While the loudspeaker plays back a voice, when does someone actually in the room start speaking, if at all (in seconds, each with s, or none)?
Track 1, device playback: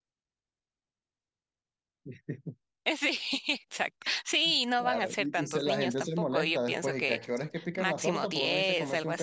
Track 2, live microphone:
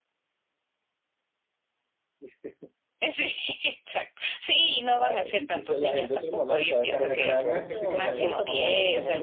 6.6 s